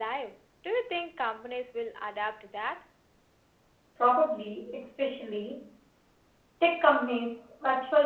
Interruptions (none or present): none